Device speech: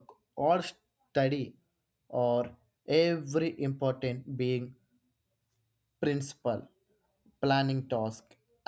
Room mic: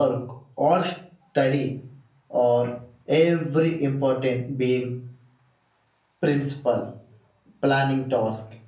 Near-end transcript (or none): none